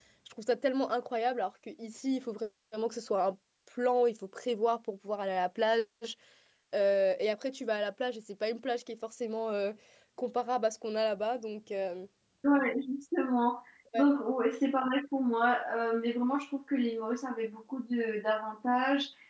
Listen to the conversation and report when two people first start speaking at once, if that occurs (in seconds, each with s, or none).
none